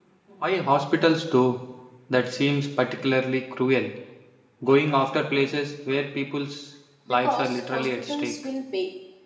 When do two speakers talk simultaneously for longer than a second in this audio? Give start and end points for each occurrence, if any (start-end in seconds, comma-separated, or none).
7.1-8.3